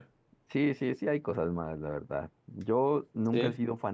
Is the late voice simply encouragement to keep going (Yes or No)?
Yes